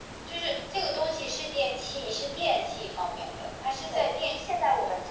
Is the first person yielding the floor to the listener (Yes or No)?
Yes